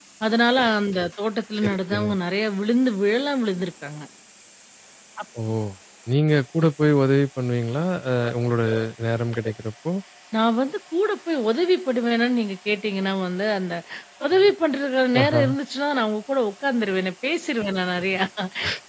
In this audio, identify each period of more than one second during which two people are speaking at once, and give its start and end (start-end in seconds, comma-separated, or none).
none